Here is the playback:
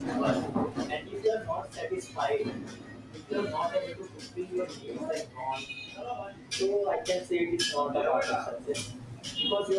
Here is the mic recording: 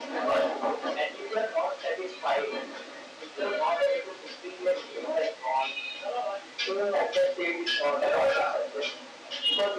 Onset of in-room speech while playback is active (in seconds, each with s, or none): none